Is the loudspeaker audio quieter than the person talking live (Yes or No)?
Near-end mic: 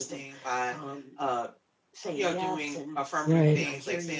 Yes